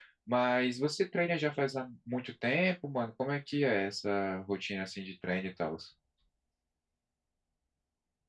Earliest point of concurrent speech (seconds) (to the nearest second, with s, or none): none